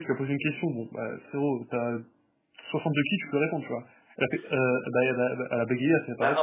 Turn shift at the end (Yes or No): Yes